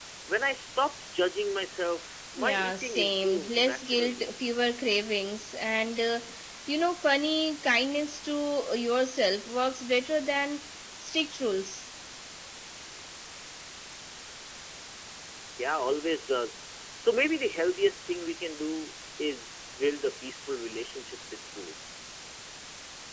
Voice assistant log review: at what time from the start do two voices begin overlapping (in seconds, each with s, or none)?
2.4 s